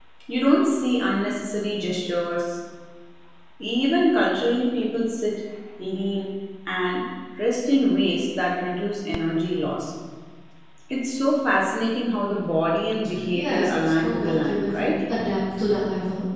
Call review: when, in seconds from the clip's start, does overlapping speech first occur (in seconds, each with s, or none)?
13.3 s